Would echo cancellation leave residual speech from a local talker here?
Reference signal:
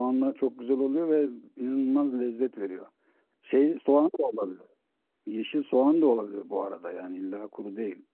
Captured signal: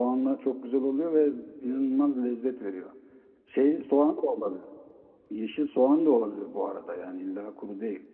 No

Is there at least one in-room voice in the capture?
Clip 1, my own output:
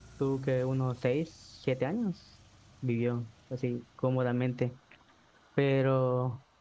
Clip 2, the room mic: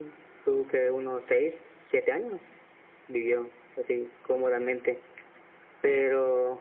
No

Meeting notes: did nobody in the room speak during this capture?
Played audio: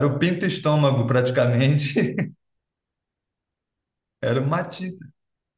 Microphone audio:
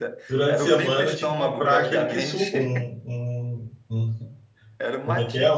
No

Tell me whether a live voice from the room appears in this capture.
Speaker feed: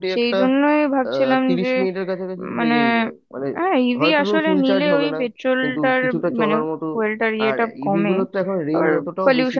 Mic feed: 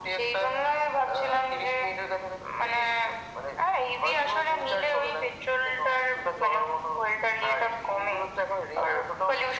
No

